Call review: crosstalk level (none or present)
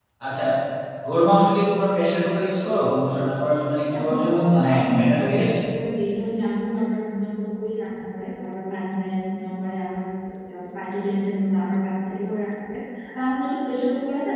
present